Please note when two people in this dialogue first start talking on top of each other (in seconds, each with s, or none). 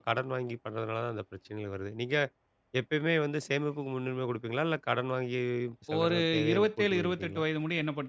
6.0 s